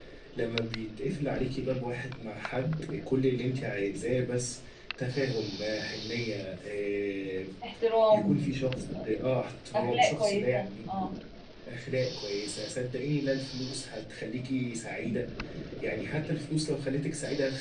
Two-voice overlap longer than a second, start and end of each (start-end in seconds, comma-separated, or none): 9.8-11.1